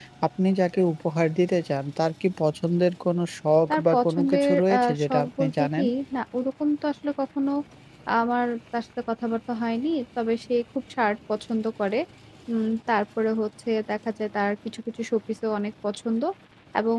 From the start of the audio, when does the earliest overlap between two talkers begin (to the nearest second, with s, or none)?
4 s